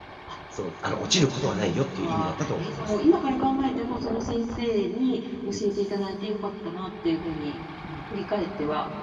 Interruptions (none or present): present